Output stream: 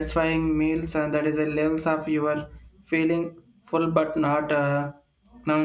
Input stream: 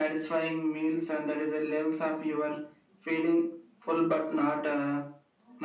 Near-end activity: none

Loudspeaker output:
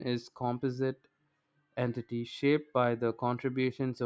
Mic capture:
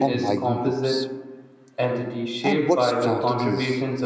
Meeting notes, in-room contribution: present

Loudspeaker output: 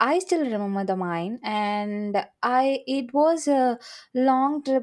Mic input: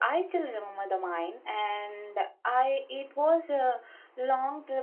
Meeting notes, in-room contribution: none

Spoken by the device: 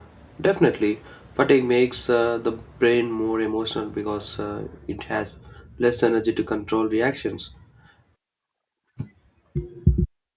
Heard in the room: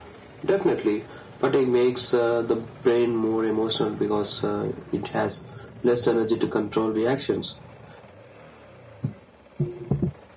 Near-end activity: none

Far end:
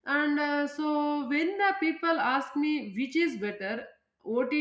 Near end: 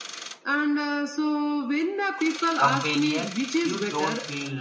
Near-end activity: present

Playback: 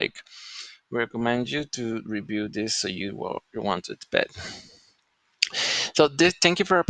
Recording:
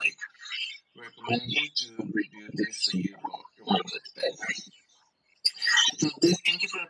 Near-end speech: none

